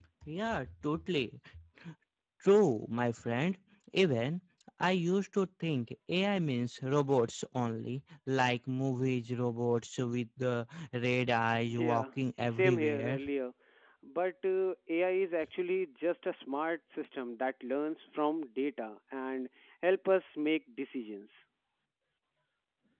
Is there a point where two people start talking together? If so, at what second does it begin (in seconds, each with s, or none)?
11.6 s